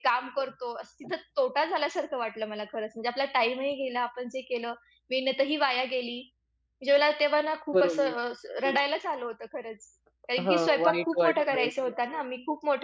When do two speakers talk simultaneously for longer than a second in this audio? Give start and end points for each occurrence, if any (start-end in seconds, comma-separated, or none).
10.4-11.7